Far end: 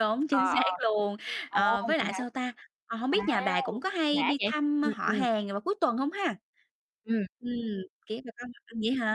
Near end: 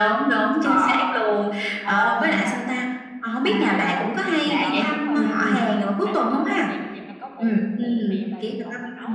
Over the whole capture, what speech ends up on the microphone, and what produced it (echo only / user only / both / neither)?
both